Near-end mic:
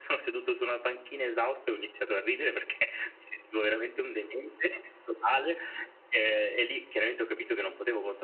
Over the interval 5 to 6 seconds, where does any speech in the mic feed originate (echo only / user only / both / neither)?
echo only